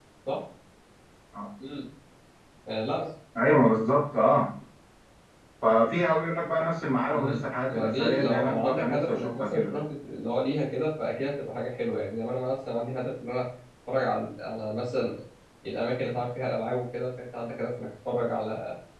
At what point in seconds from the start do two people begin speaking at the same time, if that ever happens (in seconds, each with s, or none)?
7.1 s